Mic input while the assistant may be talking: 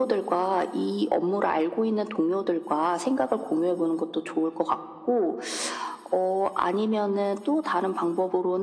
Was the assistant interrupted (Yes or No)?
No